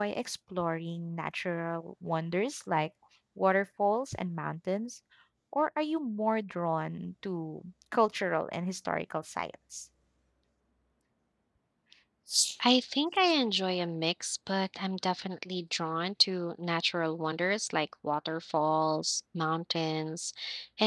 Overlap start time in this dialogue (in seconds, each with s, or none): none